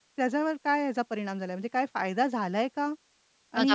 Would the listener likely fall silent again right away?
No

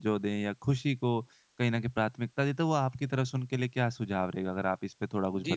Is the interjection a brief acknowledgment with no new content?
No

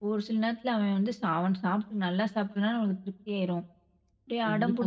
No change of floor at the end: No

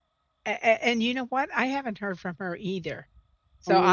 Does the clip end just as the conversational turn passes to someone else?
No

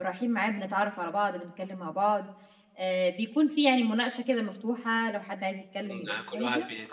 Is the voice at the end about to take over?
Yes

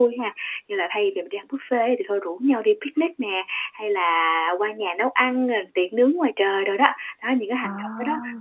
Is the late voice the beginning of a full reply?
No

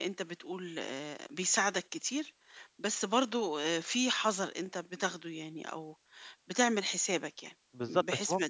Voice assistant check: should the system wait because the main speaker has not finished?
No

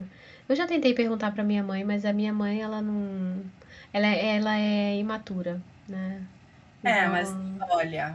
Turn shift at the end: Yes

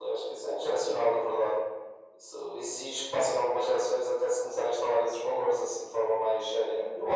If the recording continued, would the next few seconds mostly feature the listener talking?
Yes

